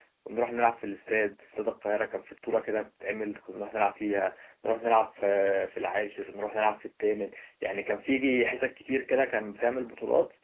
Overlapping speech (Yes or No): No